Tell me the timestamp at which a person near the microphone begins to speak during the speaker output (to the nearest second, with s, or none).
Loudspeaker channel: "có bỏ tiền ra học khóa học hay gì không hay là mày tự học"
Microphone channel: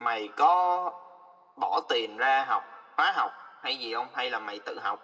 none